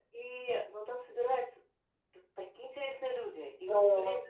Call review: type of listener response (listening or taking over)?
listening